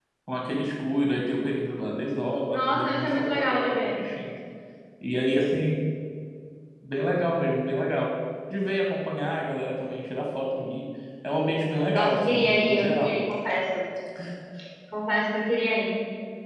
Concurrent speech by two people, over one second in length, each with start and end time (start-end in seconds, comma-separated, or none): 2.5-4.0, 11.9-13.2